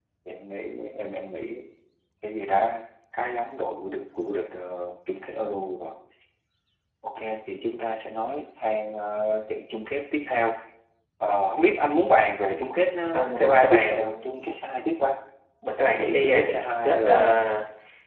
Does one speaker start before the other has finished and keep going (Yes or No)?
Yes